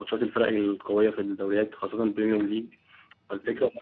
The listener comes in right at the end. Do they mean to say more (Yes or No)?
No